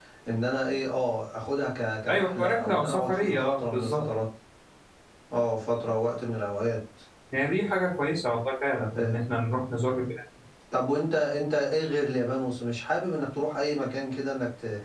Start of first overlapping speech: 2 s

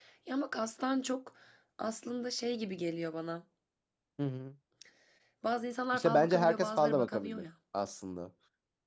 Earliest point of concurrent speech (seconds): 6 s

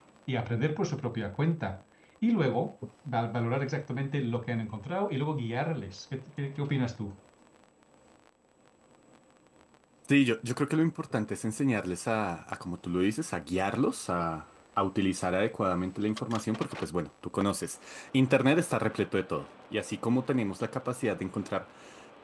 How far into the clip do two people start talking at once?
none

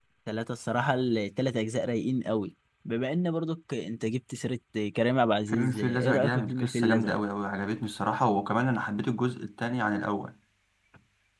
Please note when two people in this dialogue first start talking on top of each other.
5 s

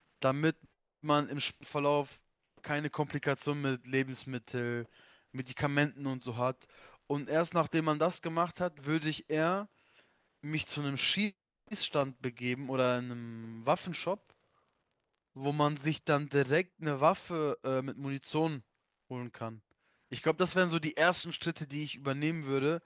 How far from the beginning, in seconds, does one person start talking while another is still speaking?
none

